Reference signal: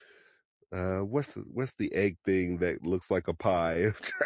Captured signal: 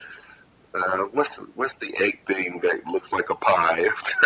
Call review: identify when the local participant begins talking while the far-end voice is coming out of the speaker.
none

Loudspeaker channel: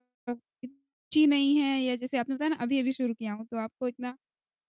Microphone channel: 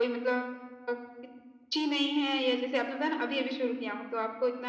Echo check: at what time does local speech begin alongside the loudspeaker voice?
none

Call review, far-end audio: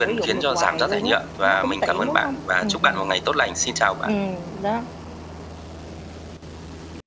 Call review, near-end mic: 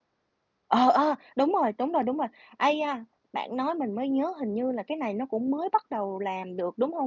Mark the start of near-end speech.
0.7 s

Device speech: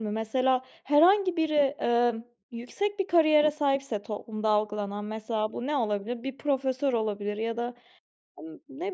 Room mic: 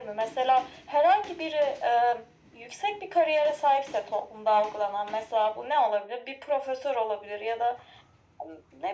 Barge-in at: none

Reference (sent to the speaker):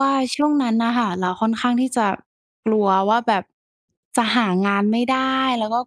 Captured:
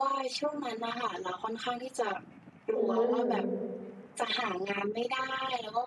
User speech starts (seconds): 2.8 s

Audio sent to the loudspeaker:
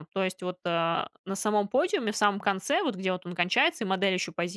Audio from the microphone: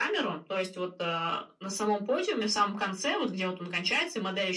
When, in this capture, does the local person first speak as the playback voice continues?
none

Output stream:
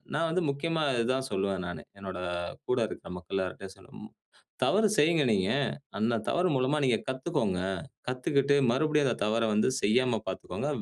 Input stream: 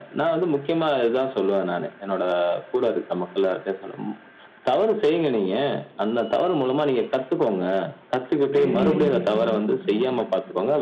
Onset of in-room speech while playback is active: 8.6 s

